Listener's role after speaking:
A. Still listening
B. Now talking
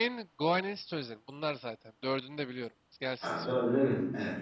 B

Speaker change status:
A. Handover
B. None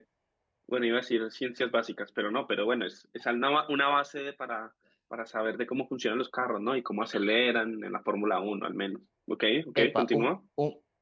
A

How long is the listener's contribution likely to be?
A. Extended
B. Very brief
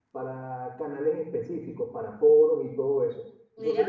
B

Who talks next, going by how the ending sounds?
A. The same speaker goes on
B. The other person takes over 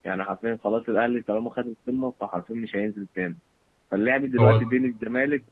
A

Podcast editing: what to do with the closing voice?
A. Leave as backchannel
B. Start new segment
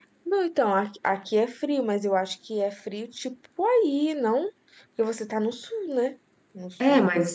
B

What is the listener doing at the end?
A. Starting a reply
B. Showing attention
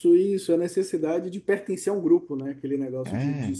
B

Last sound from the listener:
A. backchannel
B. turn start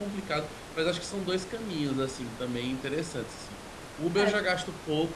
A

